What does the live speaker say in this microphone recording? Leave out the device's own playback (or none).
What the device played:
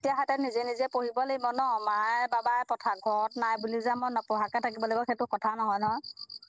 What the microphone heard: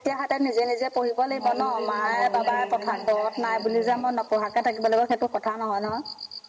হয়ো এই ভাগৰো লাগে যে ভাতকেইটা খাই দিয়াৰ লগে লগে।